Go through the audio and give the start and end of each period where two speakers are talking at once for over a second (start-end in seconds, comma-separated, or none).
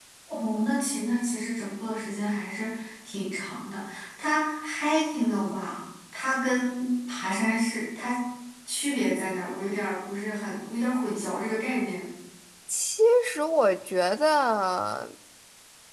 none